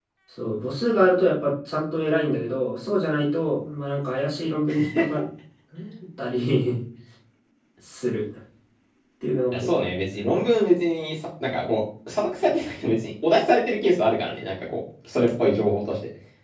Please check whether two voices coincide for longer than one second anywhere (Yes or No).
No